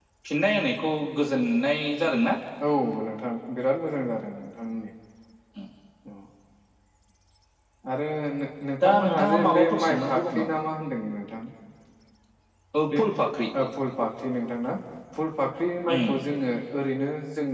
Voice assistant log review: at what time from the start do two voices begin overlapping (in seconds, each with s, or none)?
8.8 s